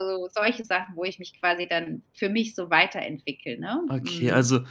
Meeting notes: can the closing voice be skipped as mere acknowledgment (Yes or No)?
No